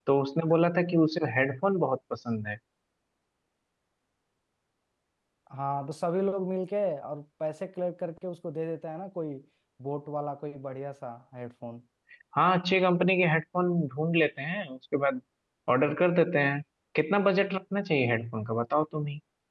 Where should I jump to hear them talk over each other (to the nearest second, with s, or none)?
none